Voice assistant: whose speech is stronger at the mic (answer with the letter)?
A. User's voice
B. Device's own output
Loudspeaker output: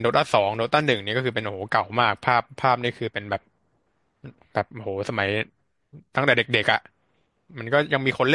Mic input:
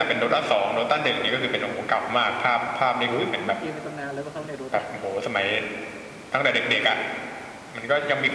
B